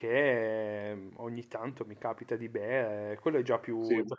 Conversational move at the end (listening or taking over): listening